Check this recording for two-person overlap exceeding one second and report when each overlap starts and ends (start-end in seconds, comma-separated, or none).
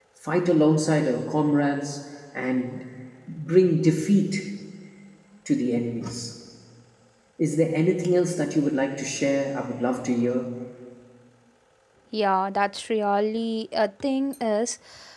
none